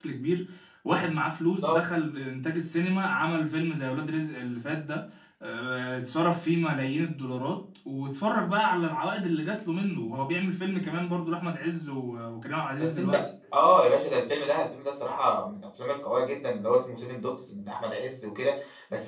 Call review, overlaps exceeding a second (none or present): none